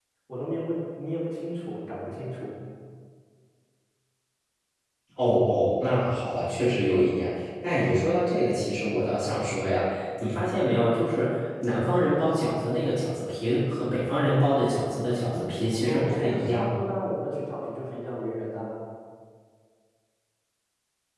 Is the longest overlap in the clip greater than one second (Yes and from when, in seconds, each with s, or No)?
Yes, from 15.3 s